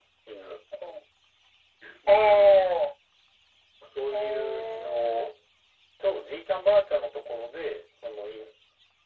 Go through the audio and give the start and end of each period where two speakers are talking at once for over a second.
4.1-5.3

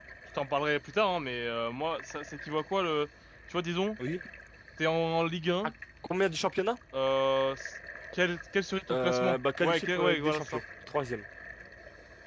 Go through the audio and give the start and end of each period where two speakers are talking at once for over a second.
8.9-10.6

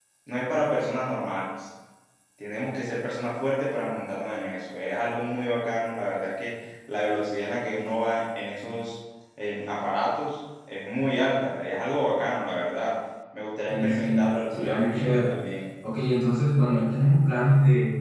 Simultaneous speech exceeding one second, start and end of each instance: 13.7-15.3

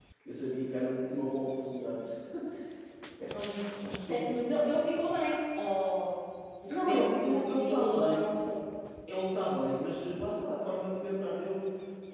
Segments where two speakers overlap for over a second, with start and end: 6.7-8.2

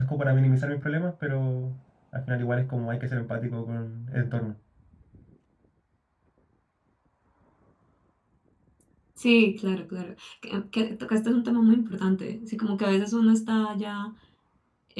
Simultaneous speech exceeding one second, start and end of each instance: none

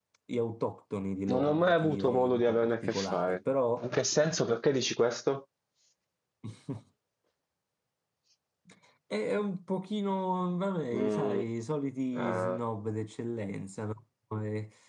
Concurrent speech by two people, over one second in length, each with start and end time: 1.3-3.4

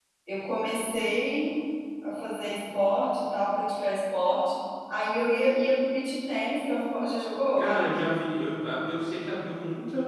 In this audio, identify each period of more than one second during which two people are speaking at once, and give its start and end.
none

